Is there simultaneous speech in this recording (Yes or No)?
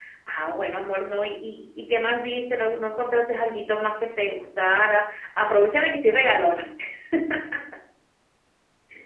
No